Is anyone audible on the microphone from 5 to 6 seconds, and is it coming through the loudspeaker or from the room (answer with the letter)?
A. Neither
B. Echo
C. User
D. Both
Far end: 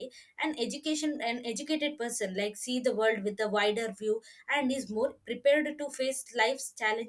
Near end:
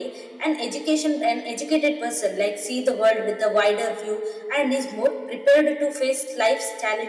B